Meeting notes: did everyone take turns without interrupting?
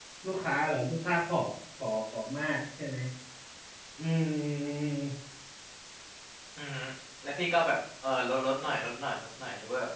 Yes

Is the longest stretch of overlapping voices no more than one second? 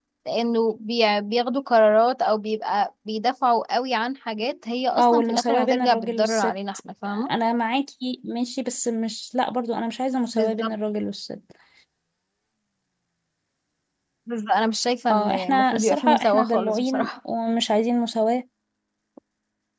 No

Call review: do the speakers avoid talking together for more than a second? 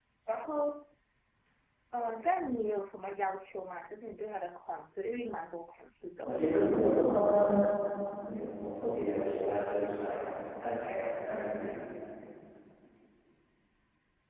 Yes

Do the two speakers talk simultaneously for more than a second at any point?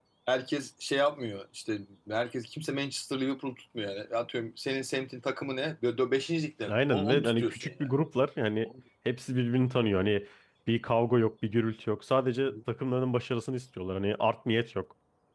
Yes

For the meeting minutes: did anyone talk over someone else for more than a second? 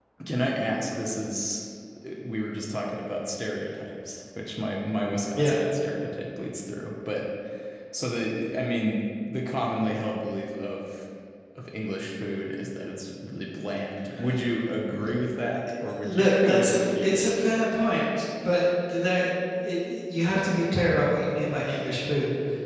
Yes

